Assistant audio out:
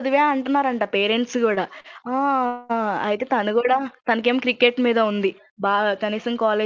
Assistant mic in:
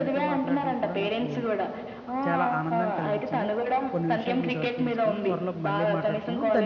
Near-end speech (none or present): present